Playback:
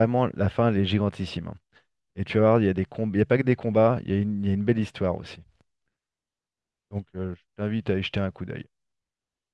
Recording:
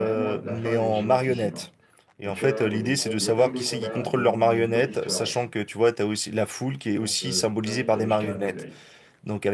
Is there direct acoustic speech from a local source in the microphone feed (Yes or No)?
Yes